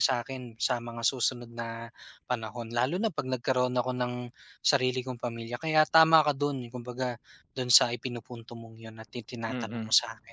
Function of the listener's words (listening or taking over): taking over